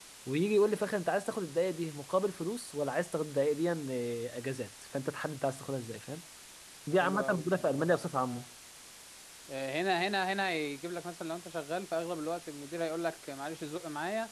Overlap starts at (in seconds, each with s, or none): 7.0 s